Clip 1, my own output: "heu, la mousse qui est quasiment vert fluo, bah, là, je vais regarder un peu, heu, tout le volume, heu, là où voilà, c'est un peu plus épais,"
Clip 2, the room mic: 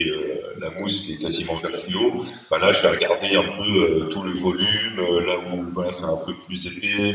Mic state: echo only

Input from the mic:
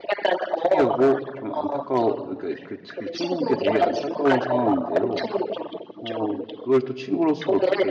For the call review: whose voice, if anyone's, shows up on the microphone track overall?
both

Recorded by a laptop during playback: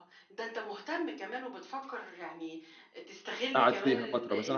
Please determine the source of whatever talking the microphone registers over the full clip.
both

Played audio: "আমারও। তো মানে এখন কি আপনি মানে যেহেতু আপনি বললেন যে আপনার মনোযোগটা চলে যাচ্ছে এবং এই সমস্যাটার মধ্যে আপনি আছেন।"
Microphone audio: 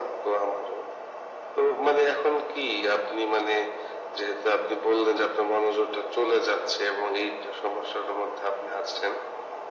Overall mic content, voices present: echo only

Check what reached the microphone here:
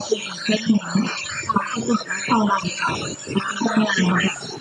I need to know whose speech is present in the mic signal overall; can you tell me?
echo only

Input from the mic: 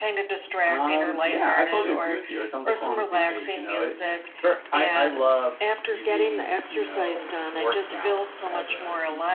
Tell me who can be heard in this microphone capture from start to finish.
both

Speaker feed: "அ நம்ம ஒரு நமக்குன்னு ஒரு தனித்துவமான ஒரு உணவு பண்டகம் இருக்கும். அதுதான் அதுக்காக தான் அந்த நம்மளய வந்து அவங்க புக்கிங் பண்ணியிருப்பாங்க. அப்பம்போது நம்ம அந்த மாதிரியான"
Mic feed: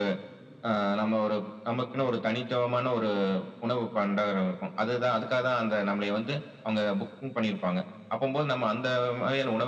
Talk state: echo only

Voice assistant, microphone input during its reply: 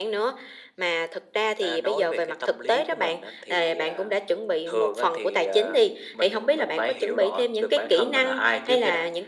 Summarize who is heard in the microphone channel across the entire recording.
echo only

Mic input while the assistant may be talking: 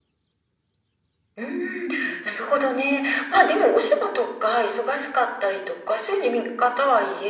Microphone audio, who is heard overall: both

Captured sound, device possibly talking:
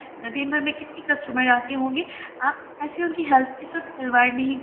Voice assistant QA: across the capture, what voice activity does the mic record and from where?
user only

